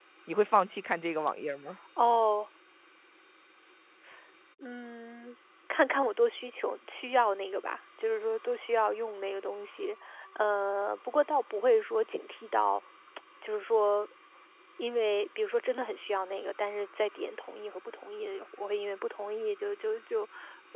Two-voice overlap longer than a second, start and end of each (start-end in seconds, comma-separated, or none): none